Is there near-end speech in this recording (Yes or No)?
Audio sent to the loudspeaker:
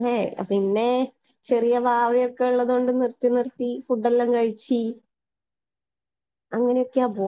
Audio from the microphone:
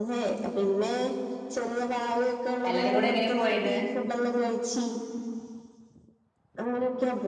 Yes